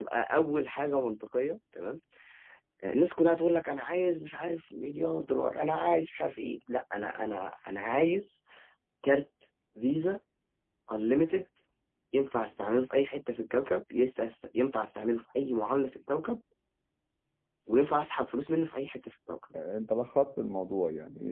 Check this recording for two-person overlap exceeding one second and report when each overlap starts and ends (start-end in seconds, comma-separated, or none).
none